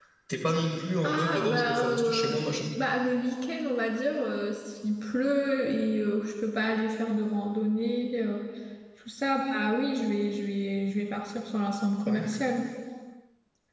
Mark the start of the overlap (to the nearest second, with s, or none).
1 s